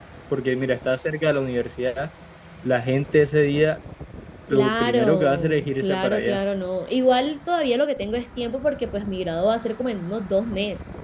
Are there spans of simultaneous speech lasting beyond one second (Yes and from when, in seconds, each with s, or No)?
Yes, from 4.5 s